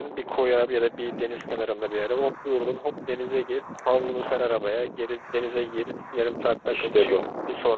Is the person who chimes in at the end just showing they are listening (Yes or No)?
Yes